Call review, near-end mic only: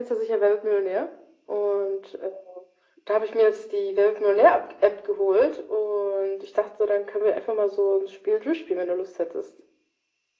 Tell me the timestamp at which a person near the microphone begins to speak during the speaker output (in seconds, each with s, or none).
none